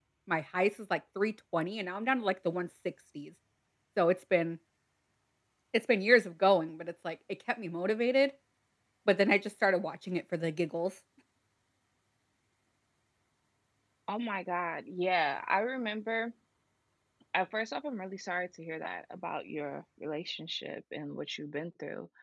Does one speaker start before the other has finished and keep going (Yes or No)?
No